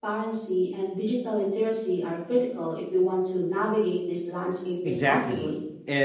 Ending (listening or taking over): taking over